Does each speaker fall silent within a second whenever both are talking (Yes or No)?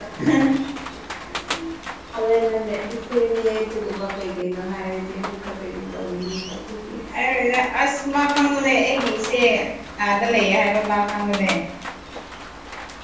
Yes